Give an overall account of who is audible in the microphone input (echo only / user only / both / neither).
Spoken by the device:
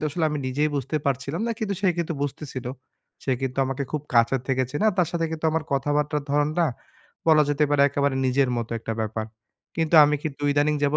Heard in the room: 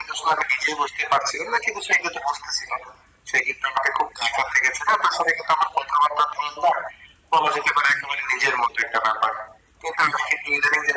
echo only